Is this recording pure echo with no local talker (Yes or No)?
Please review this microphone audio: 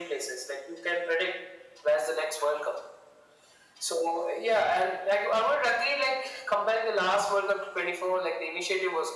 Yes